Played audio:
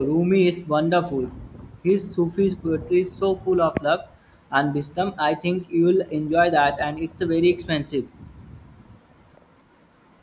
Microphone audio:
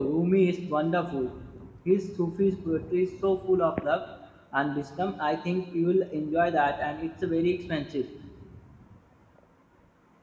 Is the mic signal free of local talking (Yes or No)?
Yes